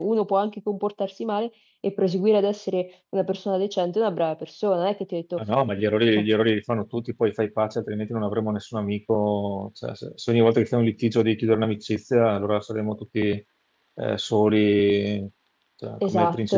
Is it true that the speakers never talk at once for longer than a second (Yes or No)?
Yes